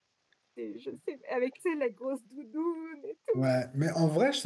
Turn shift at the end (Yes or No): Yes